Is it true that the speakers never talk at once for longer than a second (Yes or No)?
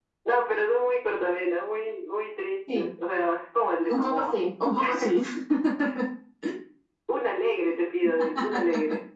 Yes